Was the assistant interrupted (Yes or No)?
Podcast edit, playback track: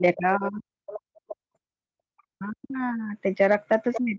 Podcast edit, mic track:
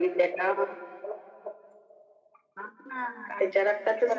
Yes